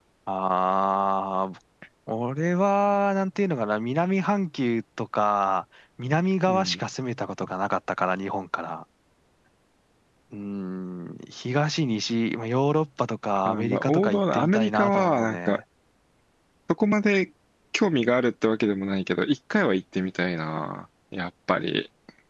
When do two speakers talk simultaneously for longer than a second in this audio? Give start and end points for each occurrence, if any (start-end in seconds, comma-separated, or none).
13.4-15.6